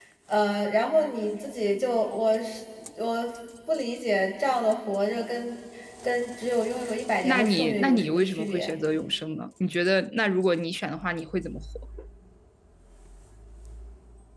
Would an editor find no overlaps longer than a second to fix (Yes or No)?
No